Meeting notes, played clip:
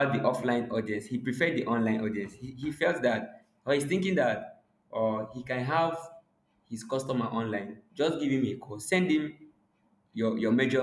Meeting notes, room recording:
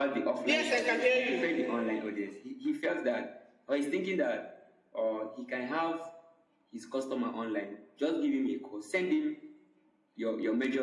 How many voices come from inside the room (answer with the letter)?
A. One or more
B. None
A